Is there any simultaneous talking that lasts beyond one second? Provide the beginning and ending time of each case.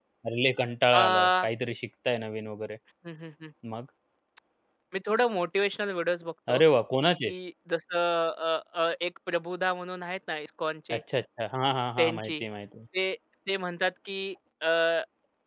none

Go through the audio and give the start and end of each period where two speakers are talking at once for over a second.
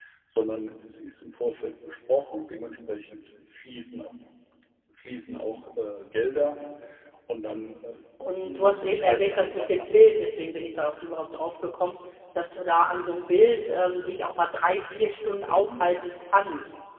8.4-10.3

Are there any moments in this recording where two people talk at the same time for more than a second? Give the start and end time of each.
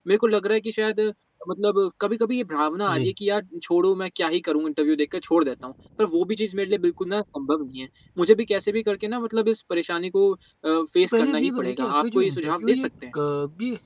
11.0-12.9

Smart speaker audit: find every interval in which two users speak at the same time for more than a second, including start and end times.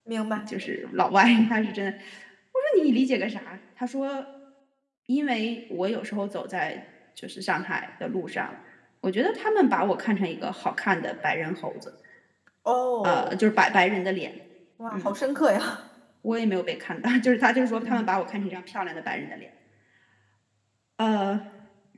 none

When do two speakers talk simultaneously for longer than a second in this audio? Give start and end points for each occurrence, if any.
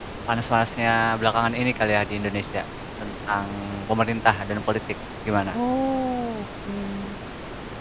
none

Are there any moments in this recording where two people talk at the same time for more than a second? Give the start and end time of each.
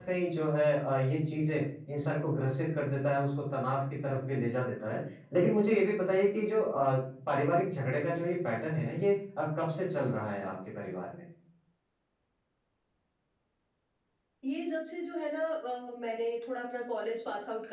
none

